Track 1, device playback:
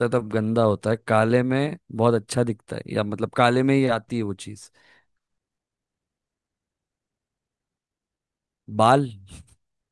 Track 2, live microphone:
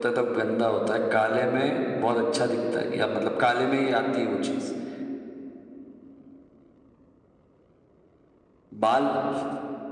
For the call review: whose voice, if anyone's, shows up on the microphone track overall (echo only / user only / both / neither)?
echo only